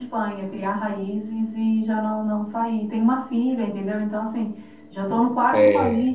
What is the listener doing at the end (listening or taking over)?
listening